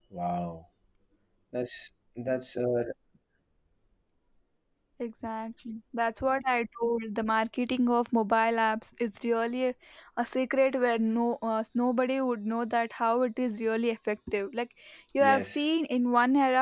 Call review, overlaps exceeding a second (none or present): none